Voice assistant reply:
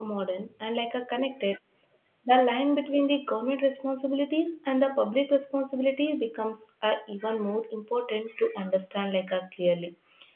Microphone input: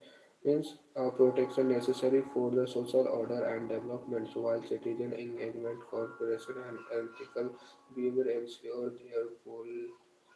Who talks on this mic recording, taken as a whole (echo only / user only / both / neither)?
user only